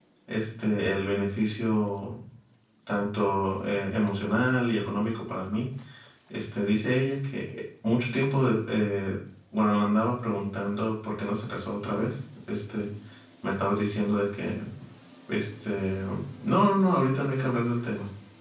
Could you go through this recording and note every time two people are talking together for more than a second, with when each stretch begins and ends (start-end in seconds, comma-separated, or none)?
none